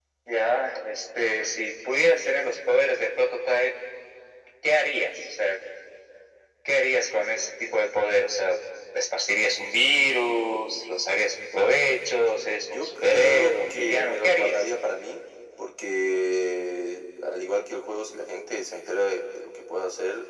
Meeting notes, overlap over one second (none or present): present